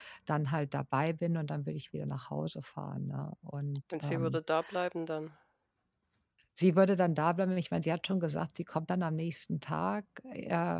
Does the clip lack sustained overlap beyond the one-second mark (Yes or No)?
Yes